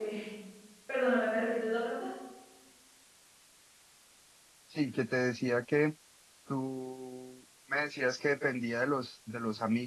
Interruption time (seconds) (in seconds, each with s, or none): none